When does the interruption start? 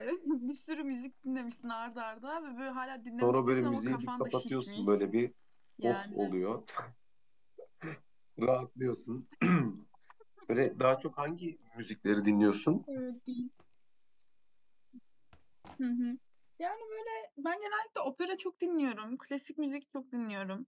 3.2 s

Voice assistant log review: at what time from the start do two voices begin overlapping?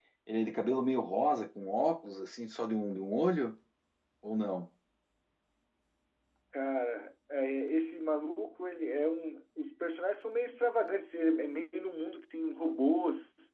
none

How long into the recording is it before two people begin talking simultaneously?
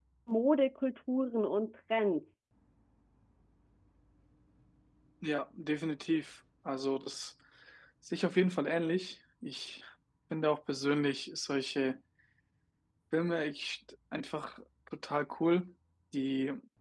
none

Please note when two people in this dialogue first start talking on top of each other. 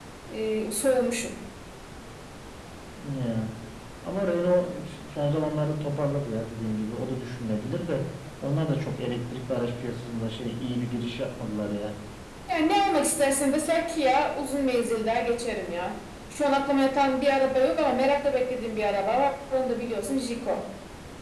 none

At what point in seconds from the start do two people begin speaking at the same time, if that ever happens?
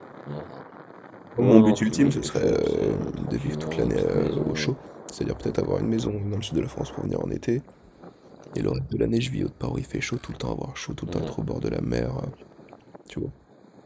1.4 s

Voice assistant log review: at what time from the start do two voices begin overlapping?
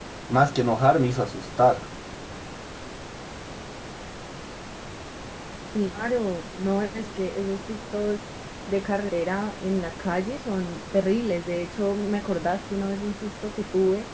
none

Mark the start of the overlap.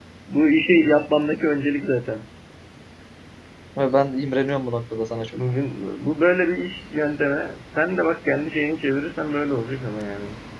none

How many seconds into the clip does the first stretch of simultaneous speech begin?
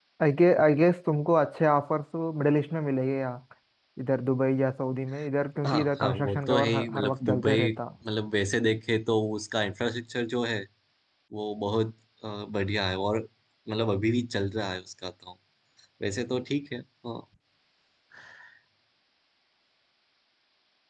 5.6 s

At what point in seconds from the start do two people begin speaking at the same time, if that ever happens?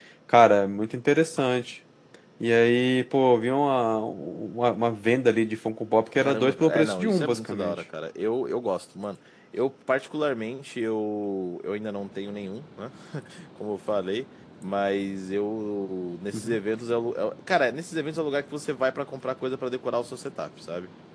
6.2 s

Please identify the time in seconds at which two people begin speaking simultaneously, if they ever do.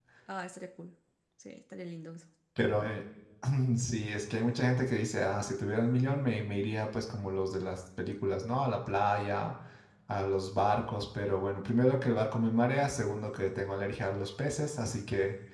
none

